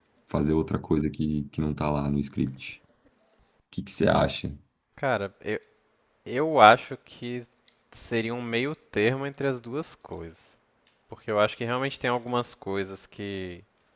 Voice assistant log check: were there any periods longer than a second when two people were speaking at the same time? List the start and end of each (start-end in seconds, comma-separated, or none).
none